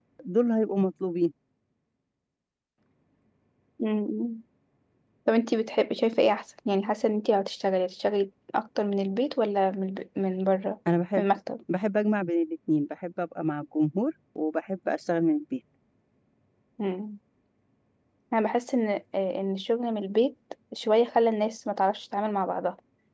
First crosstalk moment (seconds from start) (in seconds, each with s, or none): none